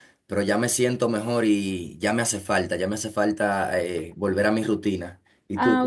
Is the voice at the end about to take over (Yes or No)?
Yes